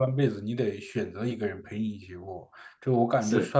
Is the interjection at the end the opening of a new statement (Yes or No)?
No